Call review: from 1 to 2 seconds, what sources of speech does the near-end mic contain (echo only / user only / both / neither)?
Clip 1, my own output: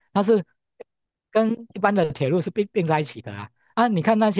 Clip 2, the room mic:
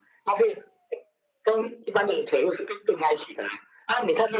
echo only